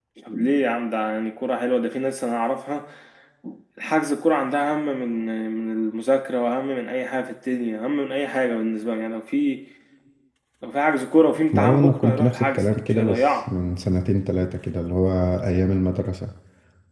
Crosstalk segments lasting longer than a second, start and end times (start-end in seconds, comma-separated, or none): 11.5-13.5